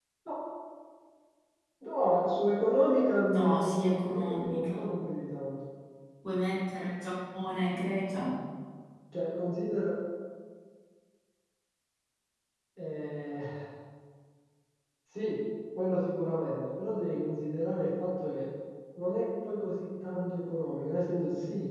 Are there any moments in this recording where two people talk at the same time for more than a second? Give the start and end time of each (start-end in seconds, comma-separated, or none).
3.3-4.8